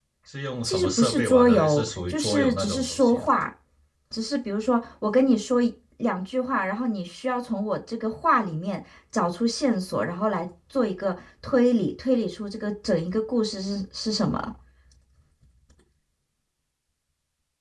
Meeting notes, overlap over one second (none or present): present